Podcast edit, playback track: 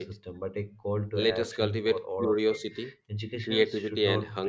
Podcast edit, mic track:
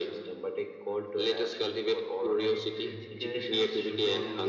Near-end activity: present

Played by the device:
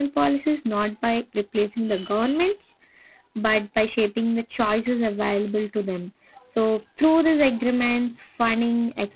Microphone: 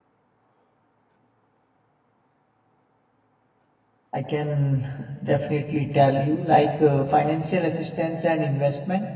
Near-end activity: present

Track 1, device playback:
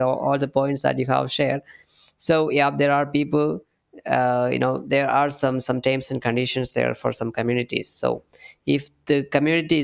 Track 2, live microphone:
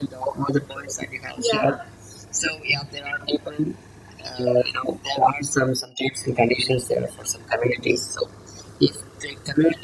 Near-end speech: present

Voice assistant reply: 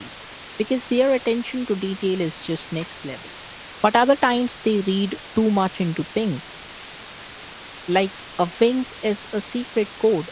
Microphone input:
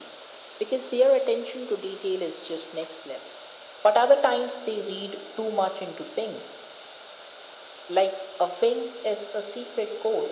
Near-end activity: none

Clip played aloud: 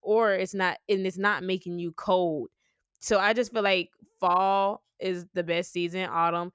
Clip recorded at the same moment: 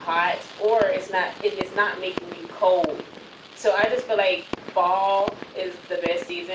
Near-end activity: none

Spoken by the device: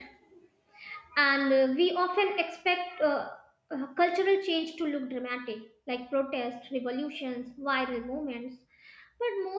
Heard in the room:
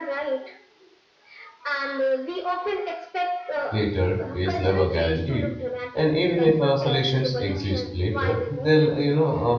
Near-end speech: present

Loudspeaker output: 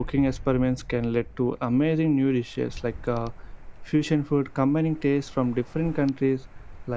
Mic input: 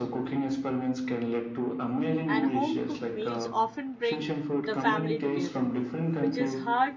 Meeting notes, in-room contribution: present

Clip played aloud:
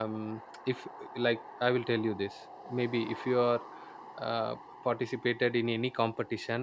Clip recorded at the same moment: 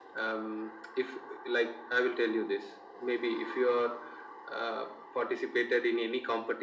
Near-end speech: none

